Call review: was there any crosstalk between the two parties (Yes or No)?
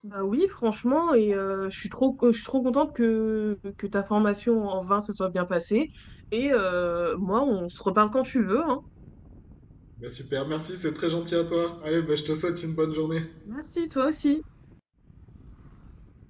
No